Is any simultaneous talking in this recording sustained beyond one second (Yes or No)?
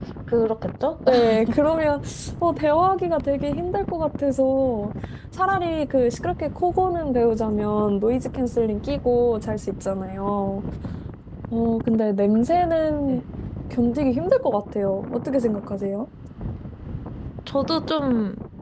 No